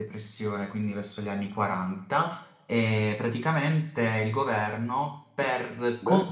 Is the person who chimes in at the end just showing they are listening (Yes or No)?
Yes